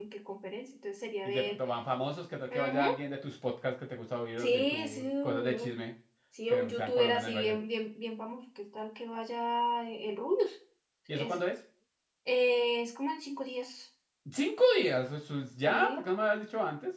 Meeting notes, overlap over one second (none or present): present